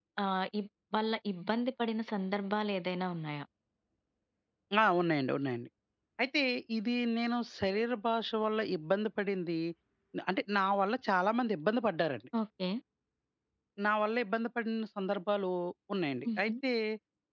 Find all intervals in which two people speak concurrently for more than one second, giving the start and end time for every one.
none

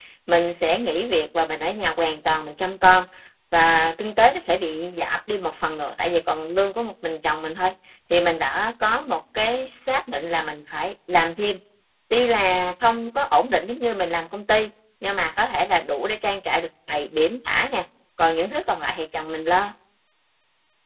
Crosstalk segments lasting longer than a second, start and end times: none

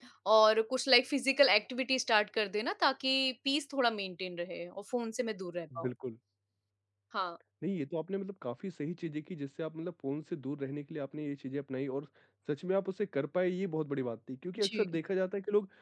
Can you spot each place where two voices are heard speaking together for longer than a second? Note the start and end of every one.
none

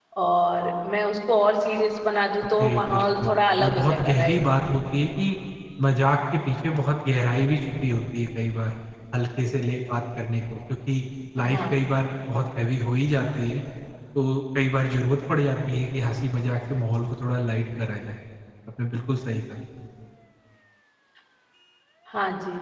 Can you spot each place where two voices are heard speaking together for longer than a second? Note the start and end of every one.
2.6-4.4

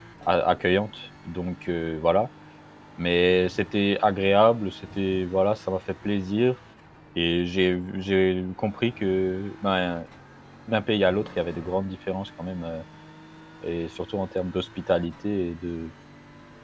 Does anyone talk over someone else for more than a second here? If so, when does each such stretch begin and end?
none

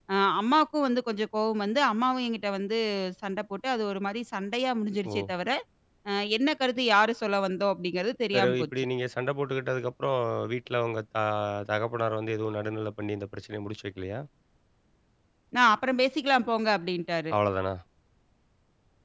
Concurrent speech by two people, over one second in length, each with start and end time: none

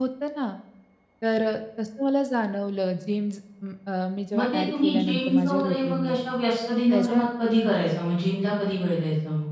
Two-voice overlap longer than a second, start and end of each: 4.4-6.2

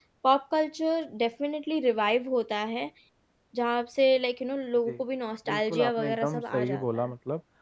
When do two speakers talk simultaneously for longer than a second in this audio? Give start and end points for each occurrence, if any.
5.5-7.1

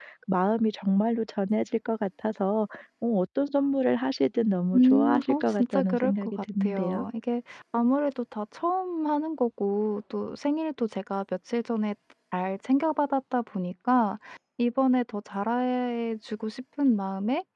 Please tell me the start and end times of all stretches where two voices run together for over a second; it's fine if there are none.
4.7-7.1

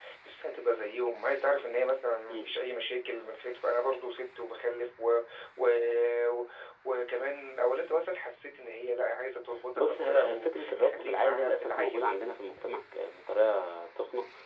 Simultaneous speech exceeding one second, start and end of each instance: 9.8-12.1

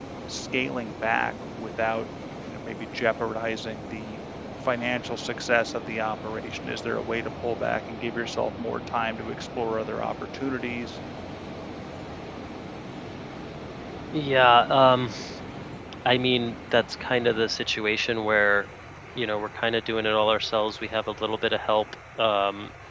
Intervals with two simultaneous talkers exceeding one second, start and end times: none

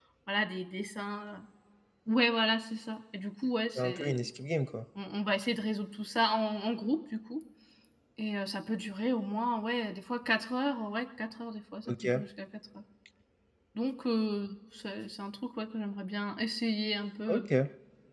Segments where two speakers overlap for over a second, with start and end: none

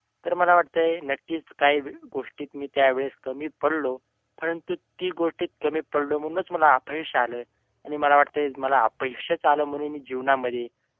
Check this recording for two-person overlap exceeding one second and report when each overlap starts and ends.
none

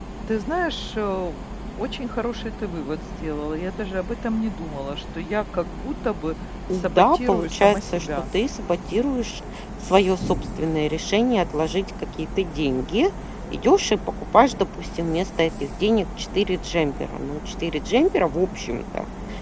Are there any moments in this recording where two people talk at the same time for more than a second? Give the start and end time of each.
6.7-8.1

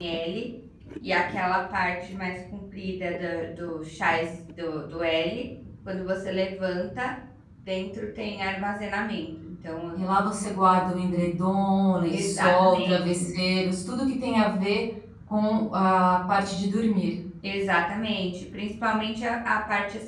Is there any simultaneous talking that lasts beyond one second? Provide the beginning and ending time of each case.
12.1-13.3

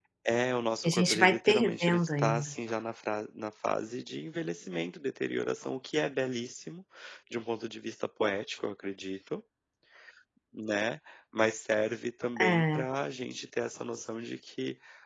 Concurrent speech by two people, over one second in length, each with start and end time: 0.8-2.5

